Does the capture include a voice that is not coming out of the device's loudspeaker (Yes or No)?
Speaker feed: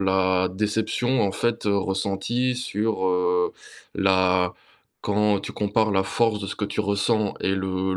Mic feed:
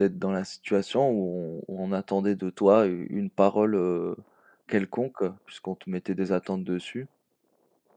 Yes